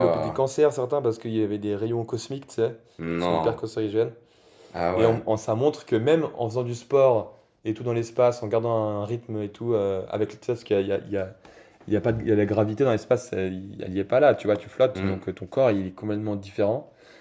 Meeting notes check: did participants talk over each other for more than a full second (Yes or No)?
No